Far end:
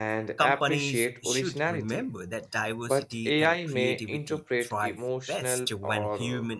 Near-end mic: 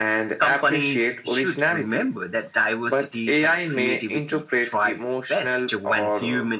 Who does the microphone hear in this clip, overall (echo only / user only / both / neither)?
echo only